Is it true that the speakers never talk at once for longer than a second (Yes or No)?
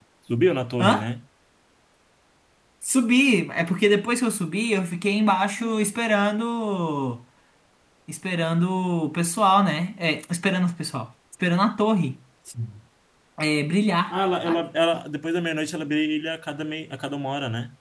Yes